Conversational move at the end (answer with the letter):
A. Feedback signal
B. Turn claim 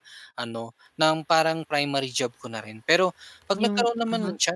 A